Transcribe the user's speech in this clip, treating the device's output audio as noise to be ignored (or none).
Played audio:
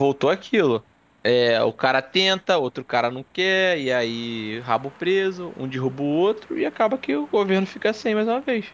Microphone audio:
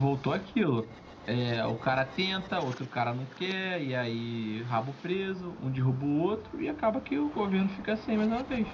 none